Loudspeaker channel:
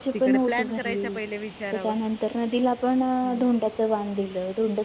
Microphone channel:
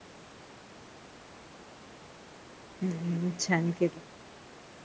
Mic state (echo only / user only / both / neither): user only